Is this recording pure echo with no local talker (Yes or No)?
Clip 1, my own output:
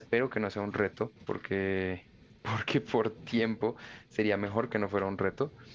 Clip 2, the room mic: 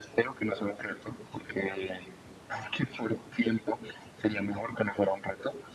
Yes